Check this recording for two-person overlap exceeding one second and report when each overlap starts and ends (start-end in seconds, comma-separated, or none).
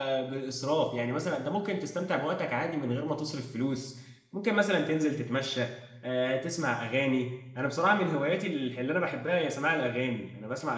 none